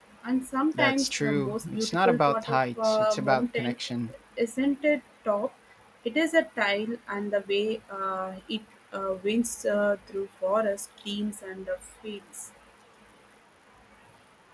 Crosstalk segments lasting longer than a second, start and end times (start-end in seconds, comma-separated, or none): 0.7-3.8